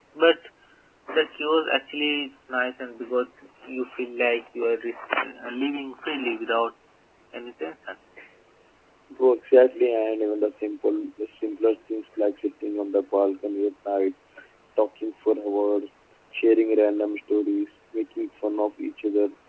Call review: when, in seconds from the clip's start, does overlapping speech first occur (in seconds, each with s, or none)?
none